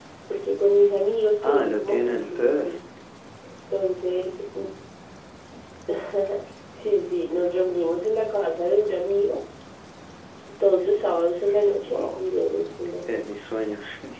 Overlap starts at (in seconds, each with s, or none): 1.4 s